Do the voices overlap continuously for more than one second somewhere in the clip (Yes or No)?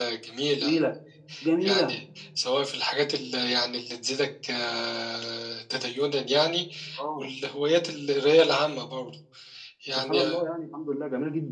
No